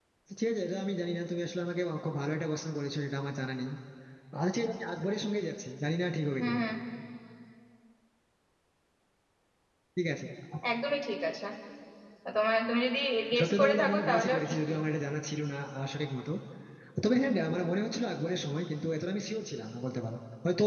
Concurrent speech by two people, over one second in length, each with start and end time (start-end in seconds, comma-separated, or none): 13.4-14.8